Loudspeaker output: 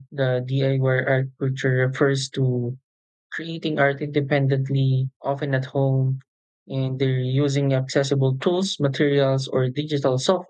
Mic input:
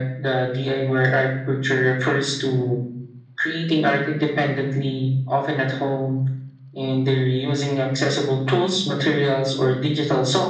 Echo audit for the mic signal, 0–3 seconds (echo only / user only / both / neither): echo only